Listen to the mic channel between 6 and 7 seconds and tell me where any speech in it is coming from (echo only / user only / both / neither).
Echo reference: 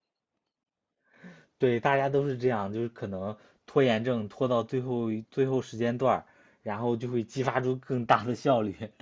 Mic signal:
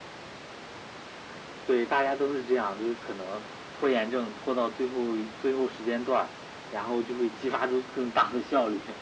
echo only